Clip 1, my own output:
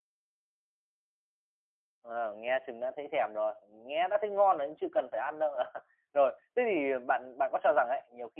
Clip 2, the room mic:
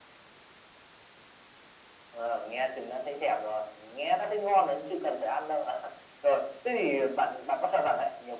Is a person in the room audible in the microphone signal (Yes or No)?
No